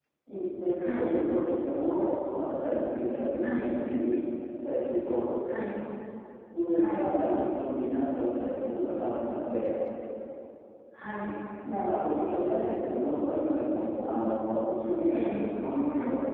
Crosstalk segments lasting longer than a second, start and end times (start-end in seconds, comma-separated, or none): none